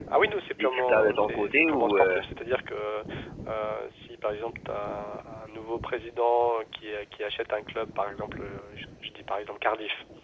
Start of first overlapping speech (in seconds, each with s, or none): 0.6 s